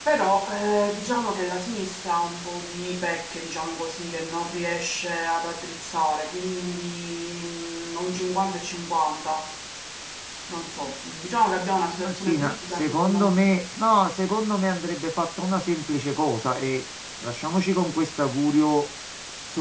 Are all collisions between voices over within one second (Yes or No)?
No